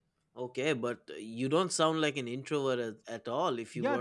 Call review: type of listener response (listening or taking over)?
taking over